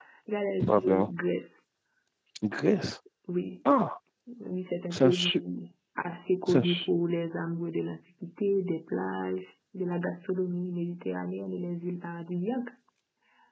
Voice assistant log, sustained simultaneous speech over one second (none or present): none